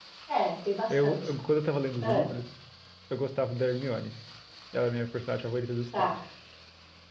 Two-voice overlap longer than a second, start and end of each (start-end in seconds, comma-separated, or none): none